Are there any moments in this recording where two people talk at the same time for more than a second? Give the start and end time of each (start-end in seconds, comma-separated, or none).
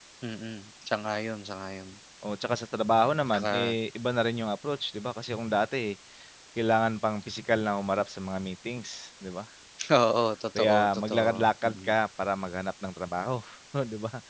10.6-12.0